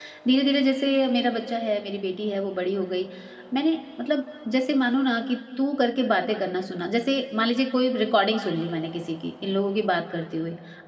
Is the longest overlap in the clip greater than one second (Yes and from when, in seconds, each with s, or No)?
No